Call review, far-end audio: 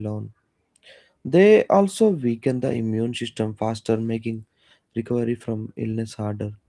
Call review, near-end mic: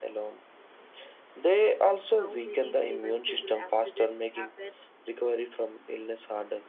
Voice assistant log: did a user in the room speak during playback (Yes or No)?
Yes